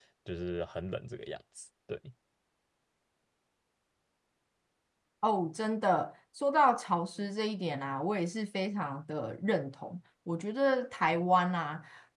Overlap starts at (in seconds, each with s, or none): none